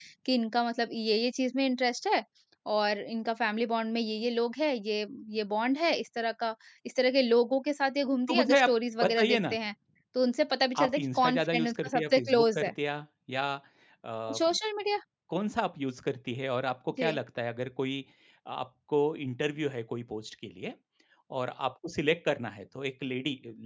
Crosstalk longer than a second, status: present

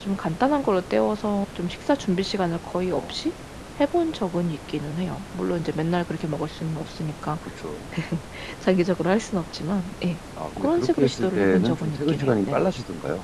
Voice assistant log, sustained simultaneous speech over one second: present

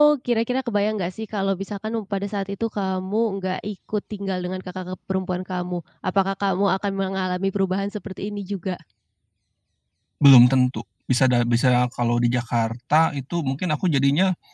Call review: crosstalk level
none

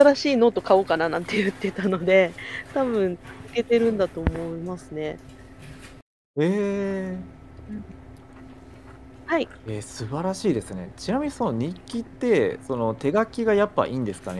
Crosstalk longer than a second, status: none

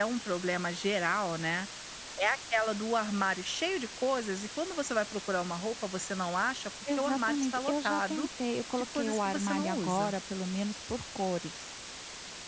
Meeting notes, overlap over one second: present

